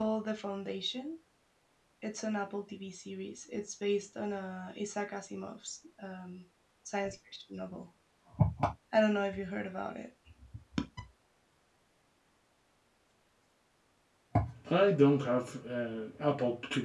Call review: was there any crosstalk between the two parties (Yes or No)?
No